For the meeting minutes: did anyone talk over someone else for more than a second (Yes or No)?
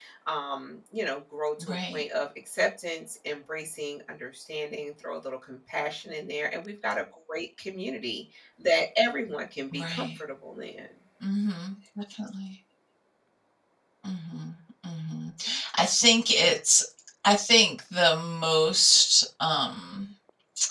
No